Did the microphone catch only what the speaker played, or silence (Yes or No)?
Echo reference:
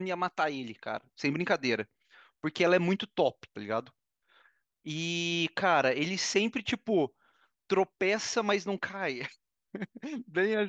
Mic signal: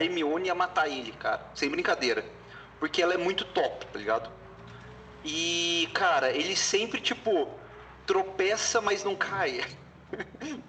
Yes